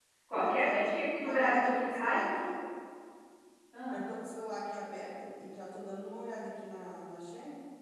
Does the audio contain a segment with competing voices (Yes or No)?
Yes